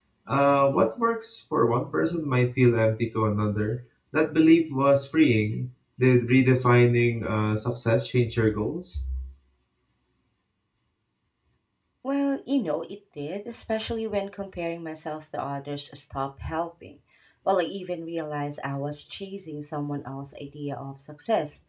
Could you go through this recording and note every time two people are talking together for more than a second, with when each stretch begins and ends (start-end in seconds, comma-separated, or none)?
none